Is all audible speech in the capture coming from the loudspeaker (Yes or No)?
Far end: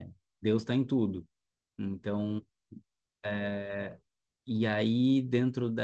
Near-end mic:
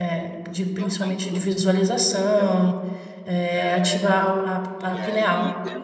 No